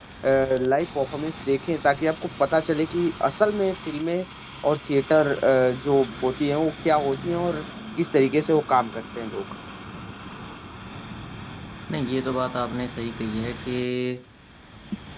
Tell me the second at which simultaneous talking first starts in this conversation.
none

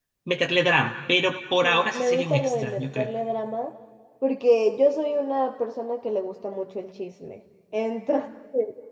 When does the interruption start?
2 s

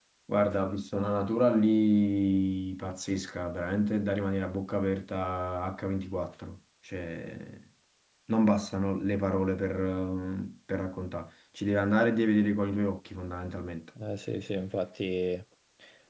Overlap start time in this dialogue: none

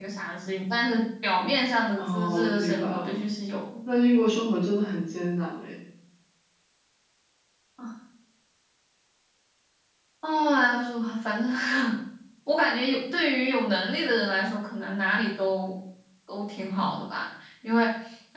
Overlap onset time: 2 s

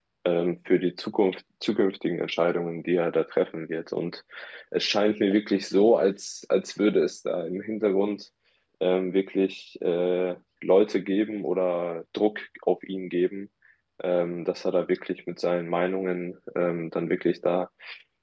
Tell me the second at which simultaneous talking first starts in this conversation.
none

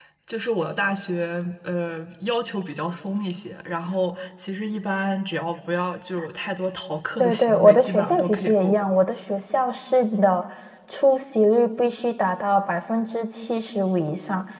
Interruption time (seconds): 7 s

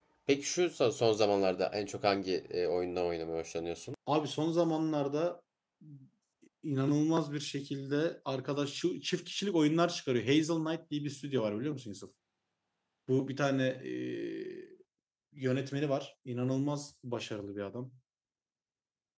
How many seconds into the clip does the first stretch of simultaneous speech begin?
none

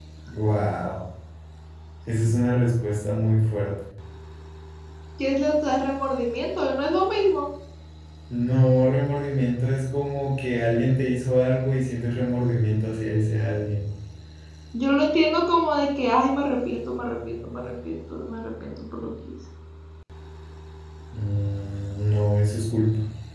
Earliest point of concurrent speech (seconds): none

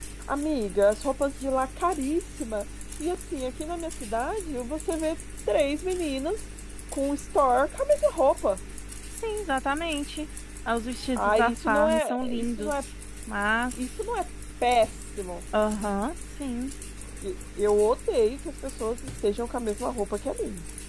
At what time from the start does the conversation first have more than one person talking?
11 s

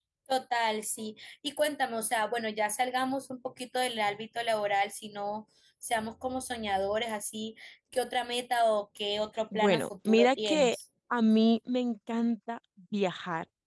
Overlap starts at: 10 s

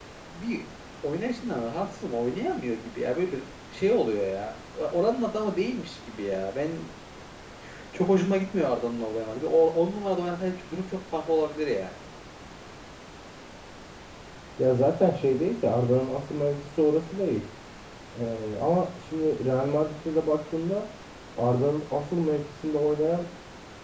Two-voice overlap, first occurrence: none

